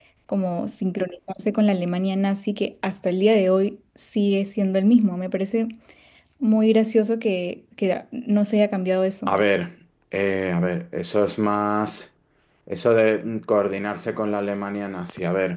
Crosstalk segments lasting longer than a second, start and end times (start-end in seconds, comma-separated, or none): none